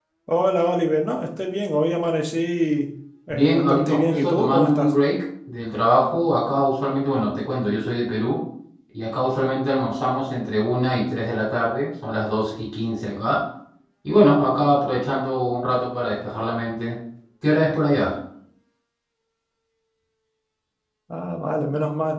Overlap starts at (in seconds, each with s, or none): 3.3 s